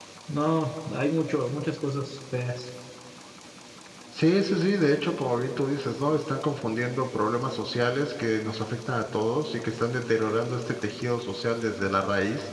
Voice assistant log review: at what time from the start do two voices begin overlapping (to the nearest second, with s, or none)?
none